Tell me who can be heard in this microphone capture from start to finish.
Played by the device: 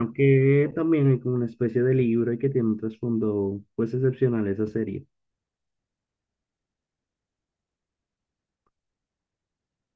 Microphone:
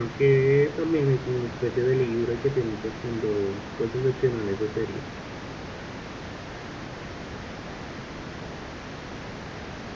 echo only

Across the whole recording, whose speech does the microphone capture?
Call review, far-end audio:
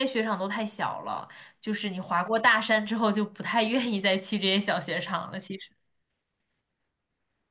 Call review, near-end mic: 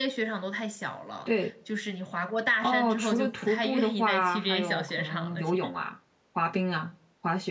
both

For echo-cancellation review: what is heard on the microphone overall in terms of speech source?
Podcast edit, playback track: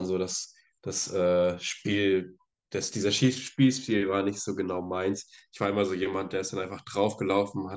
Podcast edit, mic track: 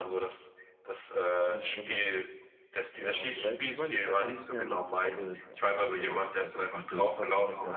both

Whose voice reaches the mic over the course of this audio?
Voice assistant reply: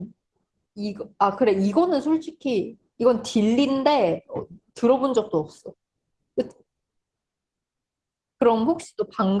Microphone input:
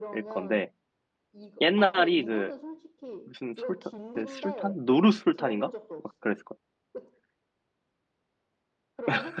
both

